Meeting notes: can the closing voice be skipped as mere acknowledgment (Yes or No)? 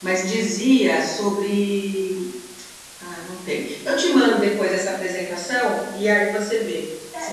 No